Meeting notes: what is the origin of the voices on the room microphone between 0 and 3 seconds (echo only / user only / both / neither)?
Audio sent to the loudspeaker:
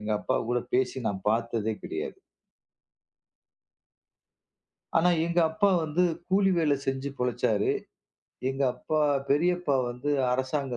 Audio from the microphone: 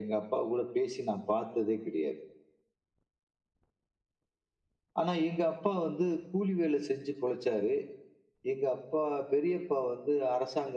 echo only